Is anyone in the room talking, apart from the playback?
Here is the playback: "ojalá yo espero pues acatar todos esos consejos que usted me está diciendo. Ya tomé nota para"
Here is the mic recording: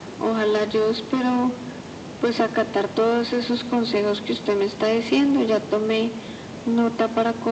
No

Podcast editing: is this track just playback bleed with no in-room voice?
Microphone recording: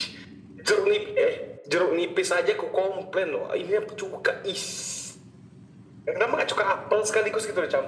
Yes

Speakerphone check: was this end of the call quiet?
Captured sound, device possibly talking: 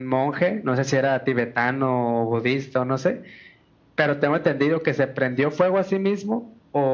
Yes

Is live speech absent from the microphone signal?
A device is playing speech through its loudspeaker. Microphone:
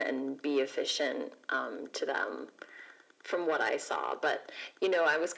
Yes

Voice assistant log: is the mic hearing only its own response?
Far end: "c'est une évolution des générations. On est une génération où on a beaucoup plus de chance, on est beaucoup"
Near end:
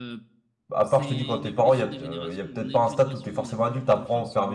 No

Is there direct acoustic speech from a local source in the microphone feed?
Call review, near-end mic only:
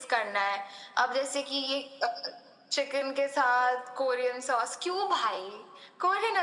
No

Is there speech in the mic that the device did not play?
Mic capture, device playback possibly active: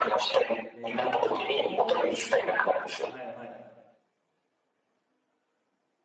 Yes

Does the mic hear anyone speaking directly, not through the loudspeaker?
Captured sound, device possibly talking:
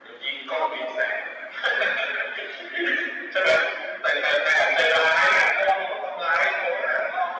Yes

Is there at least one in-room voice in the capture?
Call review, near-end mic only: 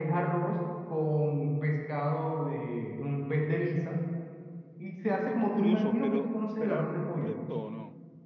Yes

